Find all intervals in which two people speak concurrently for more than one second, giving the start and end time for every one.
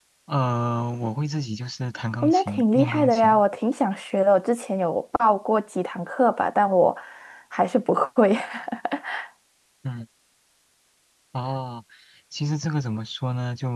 2.2-3.4

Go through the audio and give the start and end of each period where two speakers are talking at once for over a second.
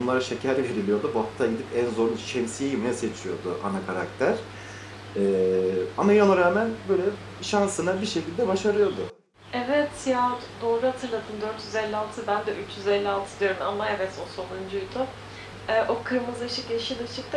none

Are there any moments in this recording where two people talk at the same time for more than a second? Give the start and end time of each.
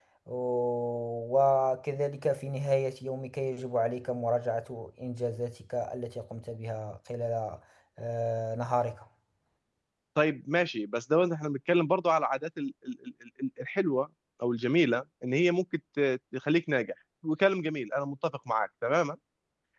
none

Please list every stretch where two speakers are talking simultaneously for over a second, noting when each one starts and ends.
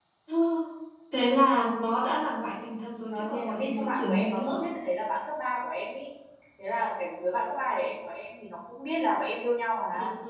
3.1-4.7

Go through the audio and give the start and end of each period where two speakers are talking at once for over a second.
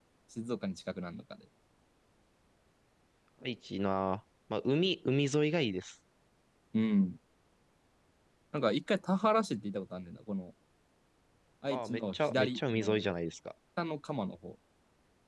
11.7-13.0

